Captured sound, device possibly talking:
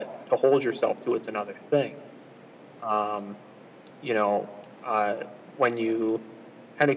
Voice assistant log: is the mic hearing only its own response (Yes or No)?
Yes